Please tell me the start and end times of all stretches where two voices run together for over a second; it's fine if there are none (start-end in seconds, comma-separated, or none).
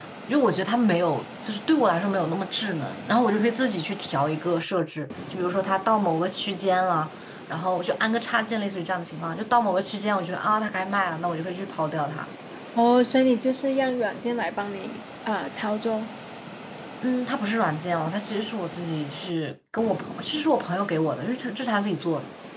none